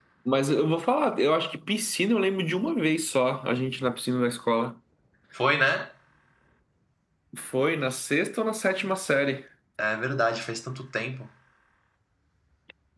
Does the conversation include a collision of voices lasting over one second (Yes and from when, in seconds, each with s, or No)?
No